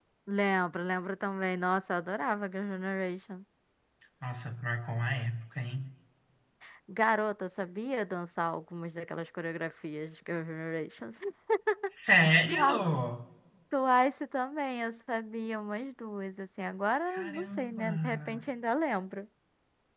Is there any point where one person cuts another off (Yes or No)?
Yes